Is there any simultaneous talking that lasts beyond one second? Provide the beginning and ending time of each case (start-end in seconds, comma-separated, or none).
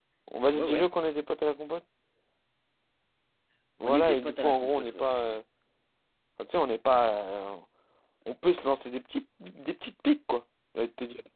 3.8-5.1